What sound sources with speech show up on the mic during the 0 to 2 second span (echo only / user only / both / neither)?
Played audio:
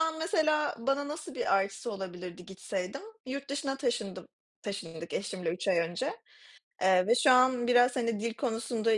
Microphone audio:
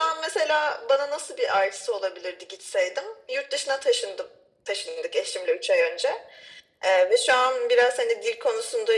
echo only